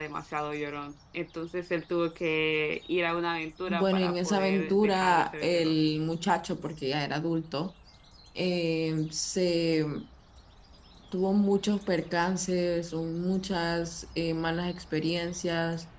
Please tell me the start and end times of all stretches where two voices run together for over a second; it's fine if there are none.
3.7-5.8

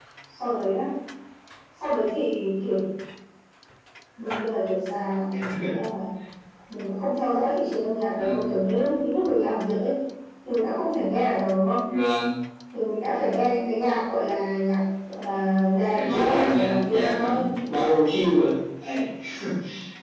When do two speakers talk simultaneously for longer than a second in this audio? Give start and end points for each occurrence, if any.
15.9-17.3

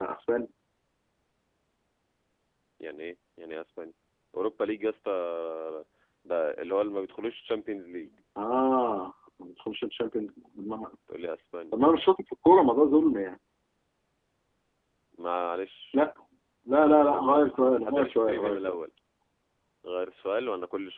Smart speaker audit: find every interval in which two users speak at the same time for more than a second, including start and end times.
16.9-18.8

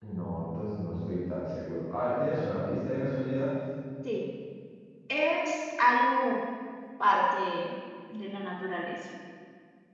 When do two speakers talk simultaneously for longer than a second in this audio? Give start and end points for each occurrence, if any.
none

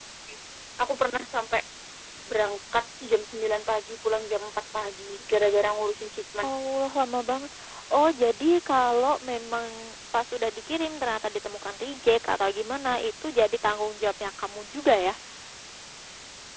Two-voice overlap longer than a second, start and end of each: none

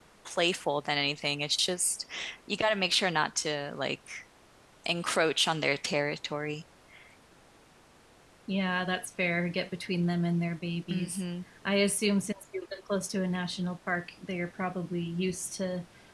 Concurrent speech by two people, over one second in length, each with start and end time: none

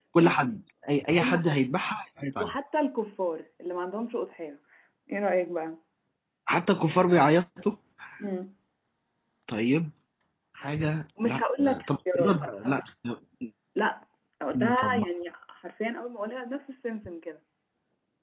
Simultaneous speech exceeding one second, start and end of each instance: 11.2-12.8

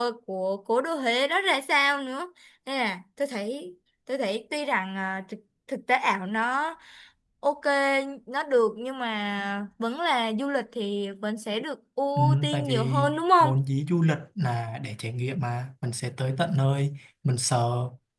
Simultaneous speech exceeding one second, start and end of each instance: 12.2-13.5

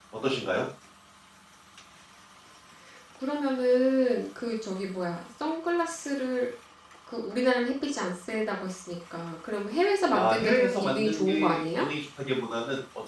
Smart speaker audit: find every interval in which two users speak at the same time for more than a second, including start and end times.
10.1-11.9

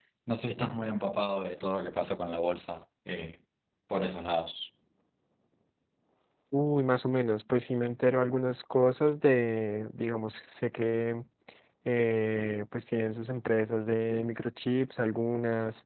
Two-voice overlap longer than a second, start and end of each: none

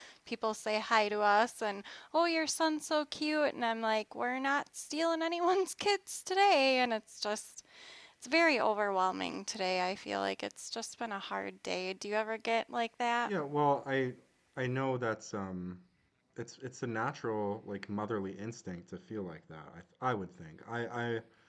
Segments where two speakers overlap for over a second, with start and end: none

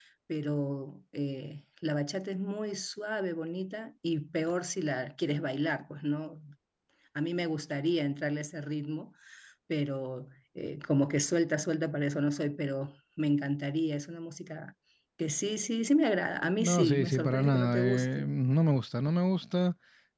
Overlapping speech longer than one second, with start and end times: 16.6-18.3

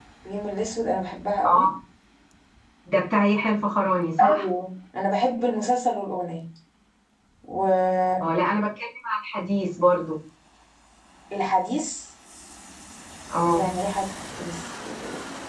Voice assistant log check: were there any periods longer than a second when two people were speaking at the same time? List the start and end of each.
none

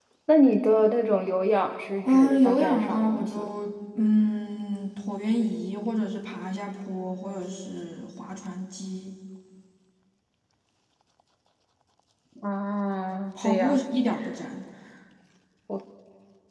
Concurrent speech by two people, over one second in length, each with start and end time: 2.0-3.4

